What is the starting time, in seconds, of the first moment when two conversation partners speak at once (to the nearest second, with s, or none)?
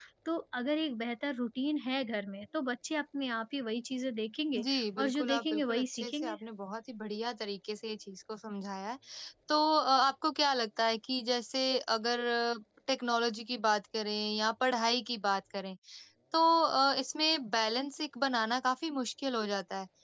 5 s